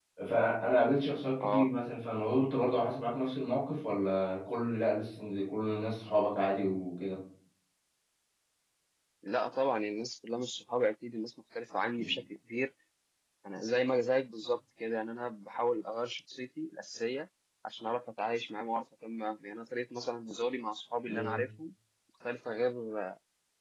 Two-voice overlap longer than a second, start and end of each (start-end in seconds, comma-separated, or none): none